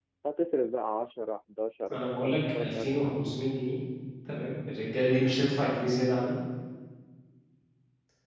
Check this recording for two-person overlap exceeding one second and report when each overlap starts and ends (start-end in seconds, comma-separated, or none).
1.9-3.4